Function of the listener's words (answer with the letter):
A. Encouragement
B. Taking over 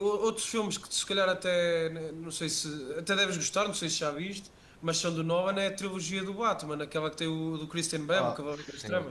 B